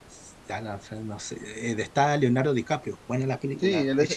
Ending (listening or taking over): taking over